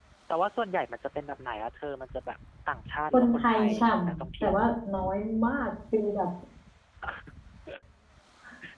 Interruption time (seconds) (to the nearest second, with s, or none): 3 s